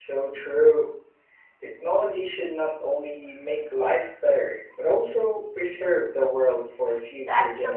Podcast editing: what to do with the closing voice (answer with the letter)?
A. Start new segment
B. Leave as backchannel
A